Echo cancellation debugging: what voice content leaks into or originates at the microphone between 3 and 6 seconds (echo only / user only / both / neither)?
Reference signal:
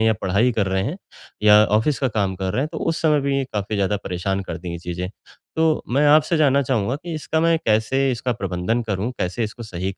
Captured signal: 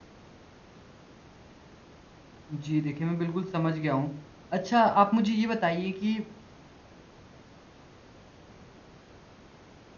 user only